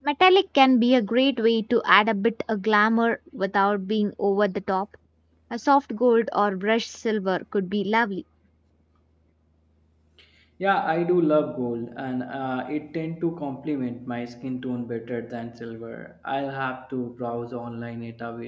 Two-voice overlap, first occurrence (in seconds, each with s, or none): none